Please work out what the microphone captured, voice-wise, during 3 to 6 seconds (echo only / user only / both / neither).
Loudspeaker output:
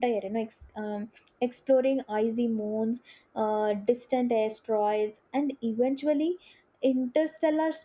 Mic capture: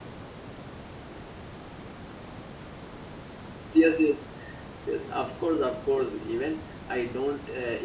user only